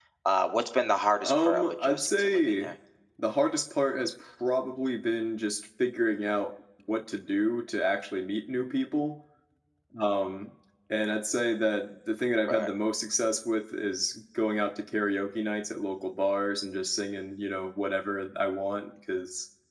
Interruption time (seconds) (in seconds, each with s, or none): 1.2 s